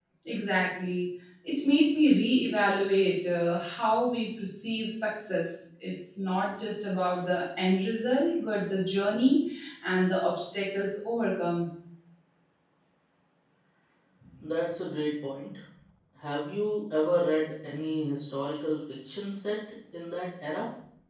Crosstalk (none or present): none